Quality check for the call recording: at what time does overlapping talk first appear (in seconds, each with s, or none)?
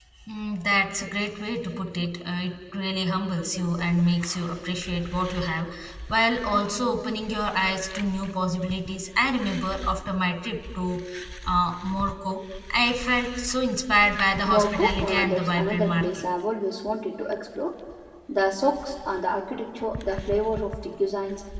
14.4 s